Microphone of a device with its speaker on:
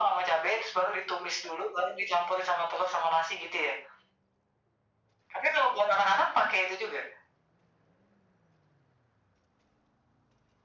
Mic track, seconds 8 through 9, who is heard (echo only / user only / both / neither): neither